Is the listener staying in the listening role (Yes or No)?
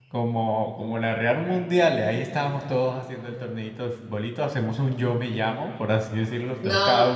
No